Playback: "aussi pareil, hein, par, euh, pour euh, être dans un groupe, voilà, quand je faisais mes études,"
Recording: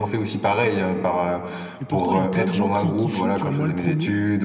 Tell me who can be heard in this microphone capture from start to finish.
both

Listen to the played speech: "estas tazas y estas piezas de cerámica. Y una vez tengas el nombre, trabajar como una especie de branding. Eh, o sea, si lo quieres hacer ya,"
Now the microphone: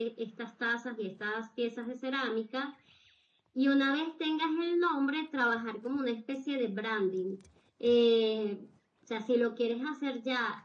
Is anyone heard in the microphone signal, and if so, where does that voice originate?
echo only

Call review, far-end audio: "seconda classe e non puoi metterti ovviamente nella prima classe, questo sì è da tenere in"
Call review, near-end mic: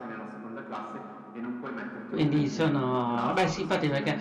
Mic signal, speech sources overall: both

